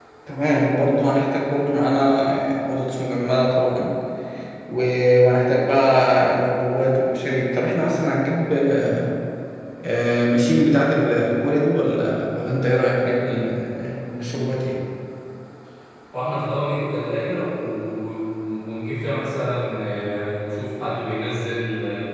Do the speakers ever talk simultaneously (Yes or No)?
No